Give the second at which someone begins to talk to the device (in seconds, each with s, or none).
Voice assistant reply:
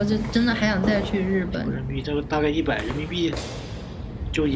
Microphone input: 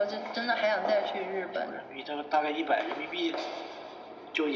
none